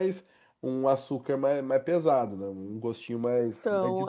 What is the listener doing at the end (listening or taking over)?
taking over